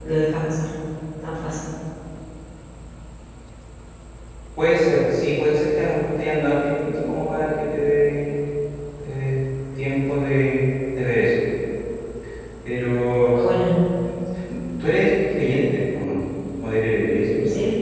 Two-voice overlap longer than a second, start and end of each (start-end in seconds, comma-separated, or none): none